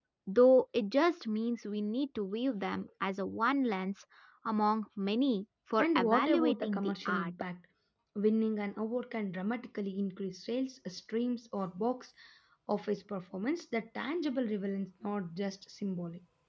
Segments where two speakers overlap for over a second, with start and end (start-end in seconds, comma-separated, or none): 5.8-7.3